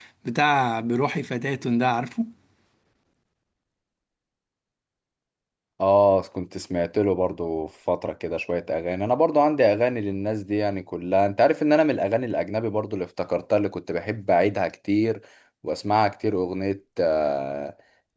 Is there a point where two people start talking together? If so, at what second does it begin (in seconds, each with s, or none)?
none